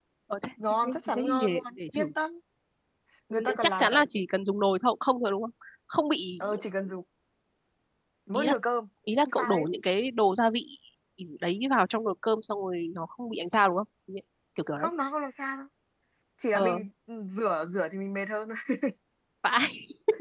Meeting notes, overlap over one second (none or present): present